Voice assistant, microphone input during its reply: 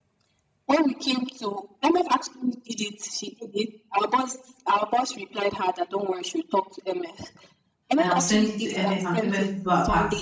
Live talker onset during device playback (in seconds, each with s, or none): 8.0 s